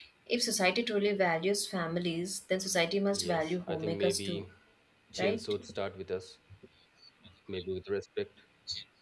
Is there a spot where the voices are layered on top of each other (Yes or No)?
Yes